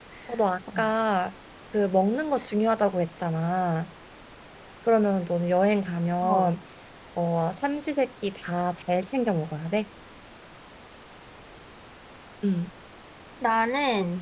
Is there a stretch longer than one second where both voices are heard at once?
No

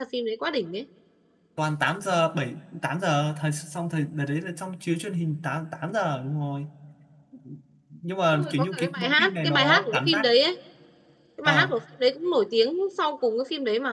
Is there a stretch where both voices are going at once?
Yes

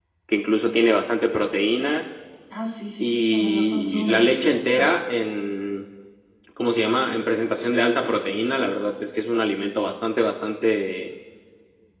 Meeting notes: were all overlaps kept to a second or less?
No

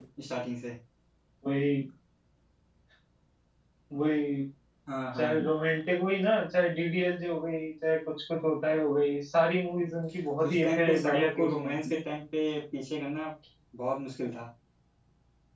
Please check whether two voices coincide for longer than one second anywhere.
Yes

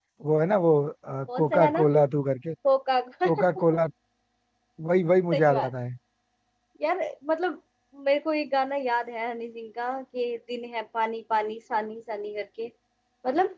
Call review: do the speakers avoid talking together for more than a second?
Yes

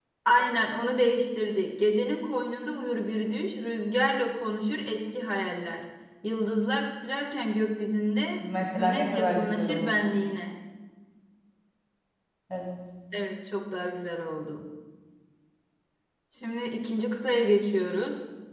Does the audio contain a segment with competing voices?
Yes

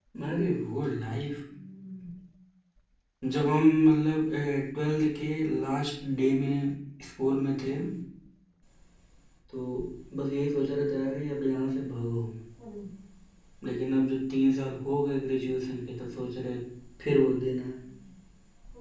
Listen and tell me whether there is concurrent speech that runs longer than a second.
No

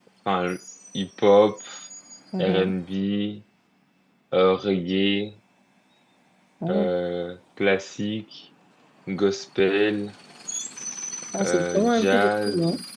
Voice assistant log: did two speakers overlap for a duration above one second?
Yes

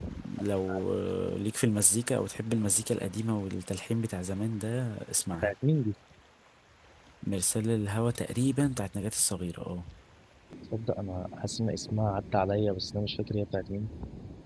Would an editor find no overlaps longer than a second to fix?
Yes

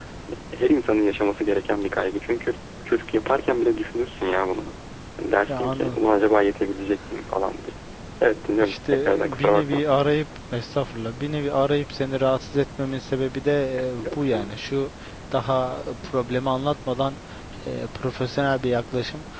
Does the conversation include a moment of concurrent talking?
Yes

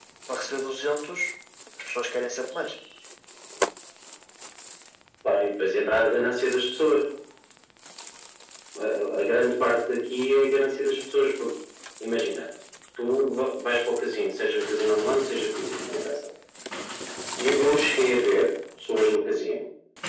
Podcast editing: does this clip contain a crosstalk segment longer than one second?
No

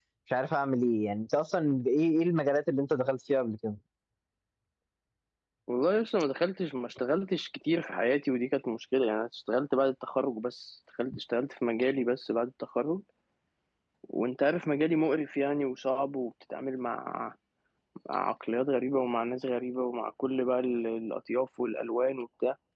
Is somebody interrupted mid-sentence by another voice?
No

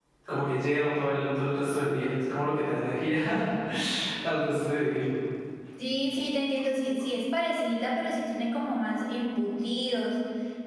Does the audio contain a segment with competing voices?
No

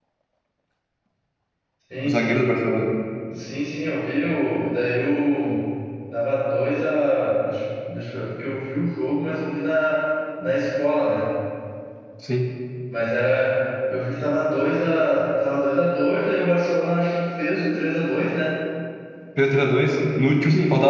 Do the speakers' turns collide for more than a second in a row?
No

